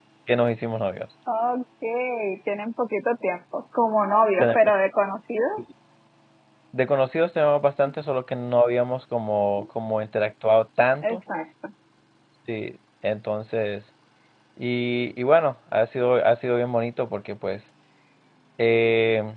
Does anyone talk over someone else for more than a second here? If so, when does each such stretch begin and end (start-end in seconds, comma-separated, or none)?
none